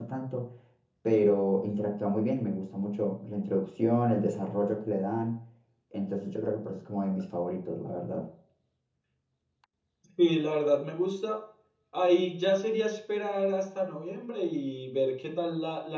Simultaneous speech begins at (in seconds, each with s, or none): none